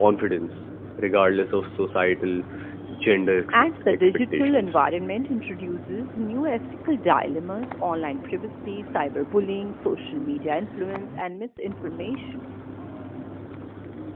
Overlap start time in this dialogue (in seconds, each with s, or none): 3.5 s